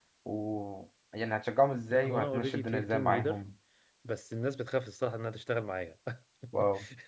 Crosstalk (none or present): present